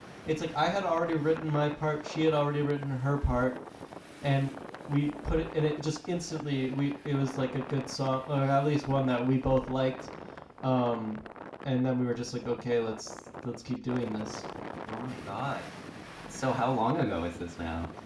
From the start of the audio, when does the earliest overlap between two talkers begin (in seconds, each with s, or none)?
none